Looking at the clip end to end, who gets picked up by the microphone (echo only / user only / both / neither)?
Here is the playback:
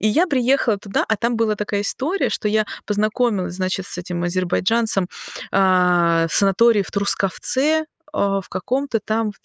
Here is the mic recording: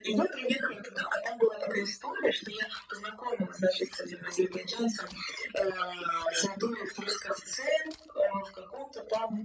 echo only